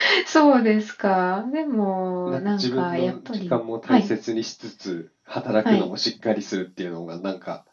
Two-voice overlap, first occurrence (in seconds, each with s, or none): 2.3 s